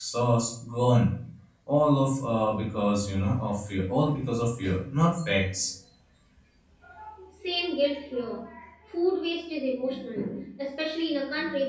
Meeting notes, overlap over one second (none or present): none